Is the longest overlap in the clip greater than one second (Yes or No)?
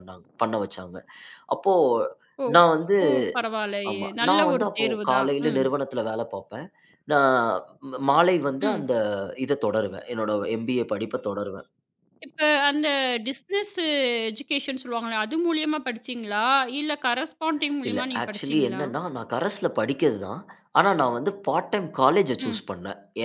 Yes